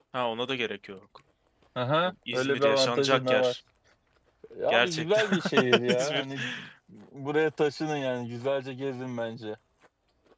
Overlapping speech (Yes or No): Yes